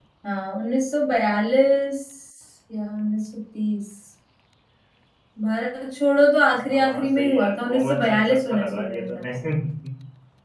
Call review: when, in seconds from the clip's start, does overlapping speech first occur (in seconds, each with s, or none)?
6.6 s